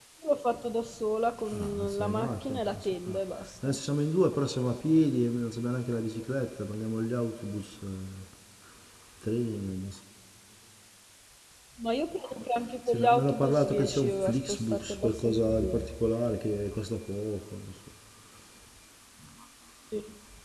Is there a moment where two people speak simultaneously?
Yes, from 1.5 s

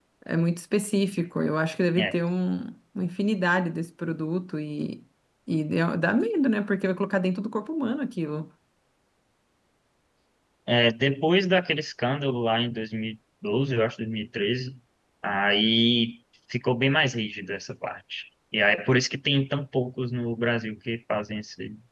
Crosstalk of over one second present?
No

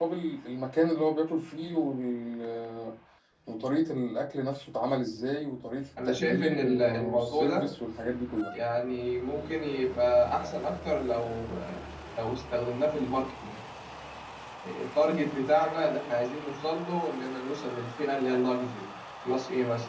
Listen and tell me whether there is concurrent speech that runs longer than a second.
Yes, from 6.0 s

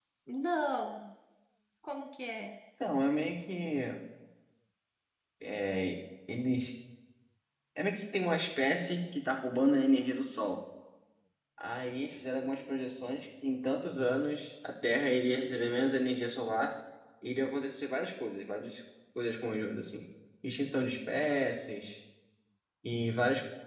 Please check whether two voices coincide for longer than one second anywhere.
No

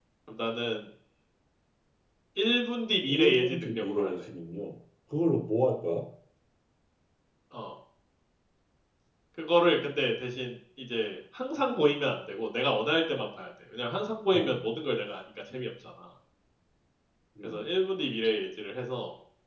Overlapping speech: Yes, from 3.1 s

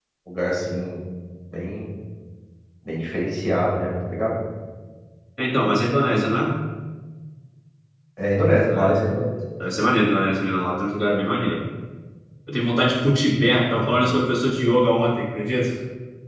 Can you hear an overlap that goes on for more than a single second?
No

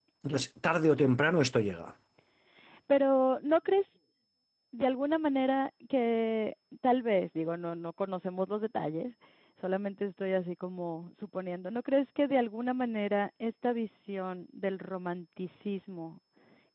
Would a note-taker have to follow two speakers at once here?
No

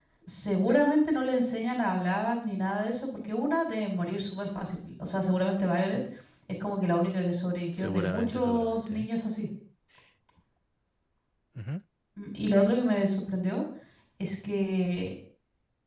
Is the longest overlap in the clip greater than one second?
Yes, from 7.7 s

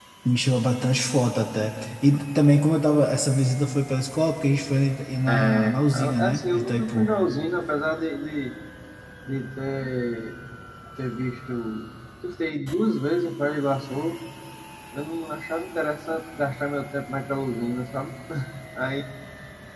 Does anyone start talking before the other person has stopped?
Yes, from 5.3 s

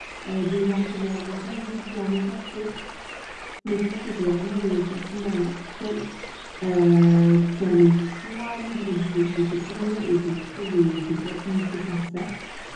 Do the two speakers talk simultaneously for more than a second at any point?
No

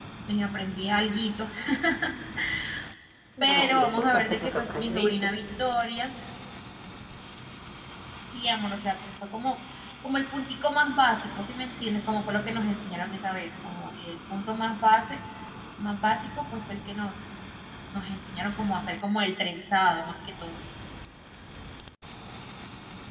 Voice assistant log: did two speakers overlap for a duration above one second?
Yes, from 3.5 s

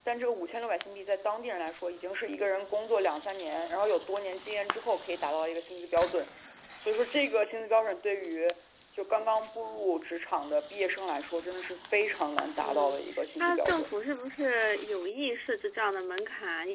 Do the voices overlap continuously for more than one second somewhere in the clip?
Yes, from 12.6 s

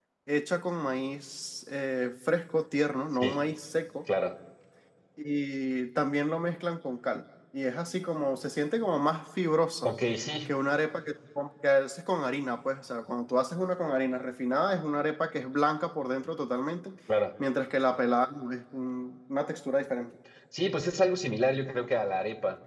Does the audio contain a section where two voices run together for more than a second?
No

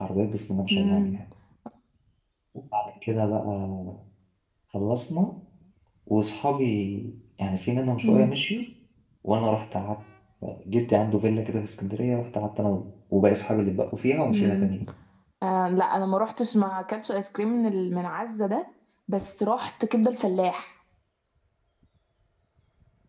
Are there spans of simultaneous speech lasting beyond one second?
No

